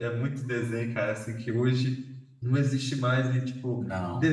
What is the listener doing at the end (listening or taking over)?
listening